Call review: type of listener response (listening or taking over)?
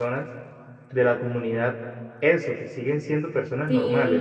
taking over